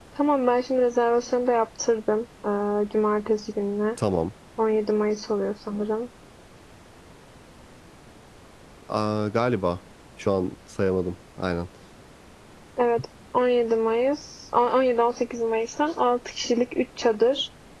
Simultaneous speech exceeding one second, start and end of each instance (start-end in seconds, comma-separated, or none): none